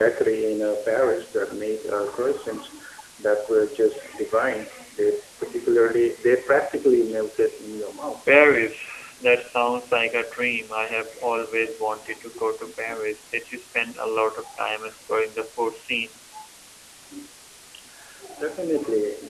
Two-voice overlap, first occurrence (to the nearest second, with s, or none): none